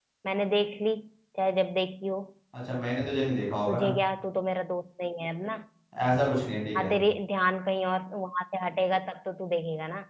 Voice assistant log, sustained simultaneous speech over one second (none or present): none